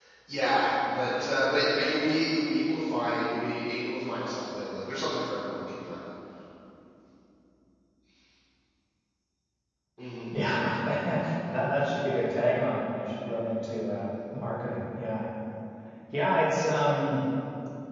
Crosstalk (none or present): none